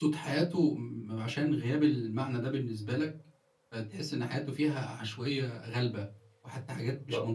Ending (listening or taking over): taking over